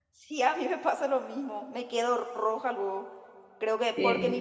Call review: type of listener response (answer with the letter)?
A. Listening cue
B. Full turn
A